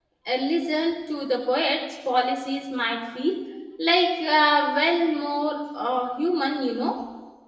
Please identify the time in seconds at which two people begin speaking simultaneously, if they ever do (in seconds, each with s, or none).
none